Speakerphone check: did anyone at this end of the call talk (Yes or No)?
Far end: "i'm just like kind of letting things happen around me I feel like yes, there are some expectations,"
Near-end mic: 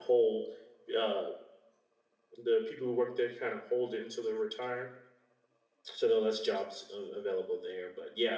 Yes